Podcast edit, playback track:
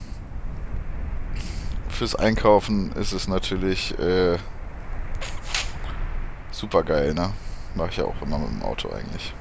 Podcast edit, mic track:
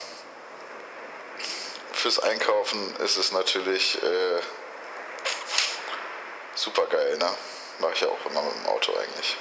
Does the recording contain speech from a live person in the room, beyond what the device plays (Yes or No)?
No